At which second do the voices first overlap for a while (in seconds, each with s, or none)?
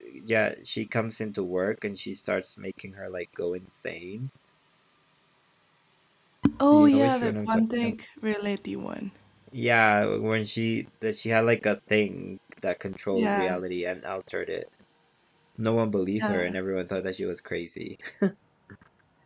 6.7 s